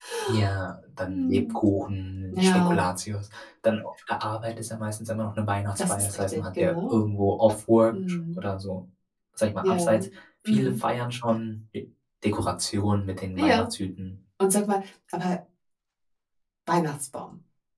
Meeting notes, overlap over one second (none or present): present